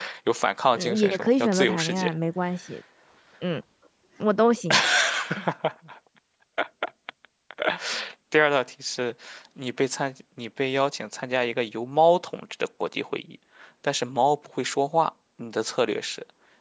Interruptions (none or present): present